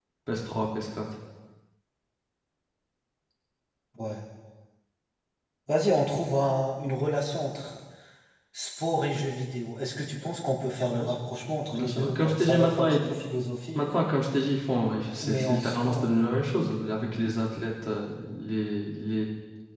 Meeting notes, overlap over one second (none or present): present